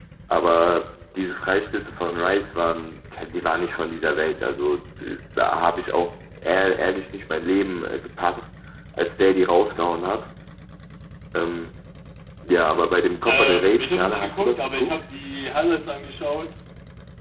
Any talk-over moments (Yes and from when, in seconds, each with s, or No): Yes, from 13.2 s